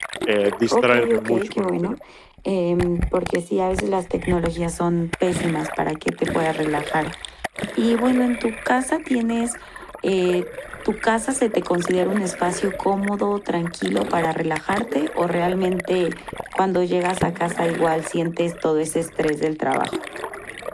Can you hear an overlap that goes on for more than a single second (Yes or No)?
Yes